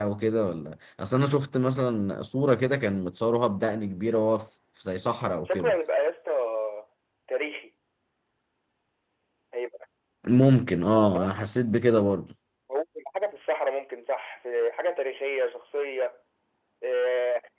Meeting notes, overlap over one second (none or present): none